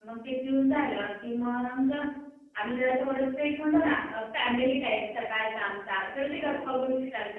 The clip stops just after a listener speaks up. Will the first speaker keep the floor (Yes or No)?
Yes